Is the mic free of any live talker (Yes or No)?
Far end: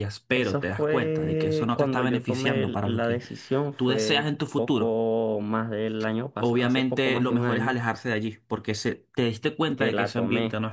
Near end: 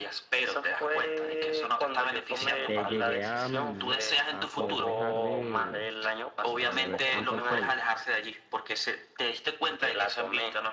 No